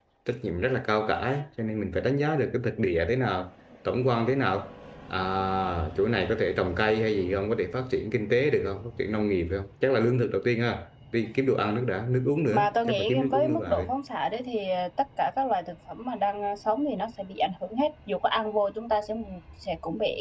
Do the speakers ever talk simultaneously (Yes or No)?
Yes